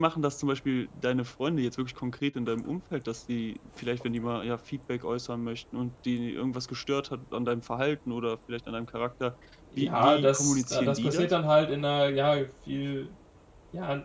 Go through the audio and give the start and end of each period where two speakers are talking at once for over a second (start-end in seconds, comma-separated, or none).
9.8-11.3